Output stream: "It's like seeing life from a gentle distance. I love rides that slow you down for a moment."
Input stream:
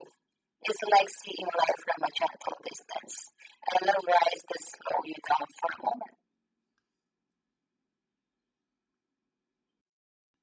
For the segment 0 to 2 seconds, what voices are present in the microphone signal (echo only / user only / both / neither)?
echo only